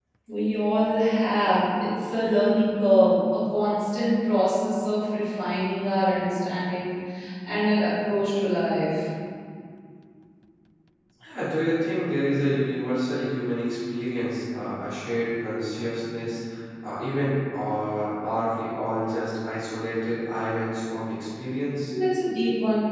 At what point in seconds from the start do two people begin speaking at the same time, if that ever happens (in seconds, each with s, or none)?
none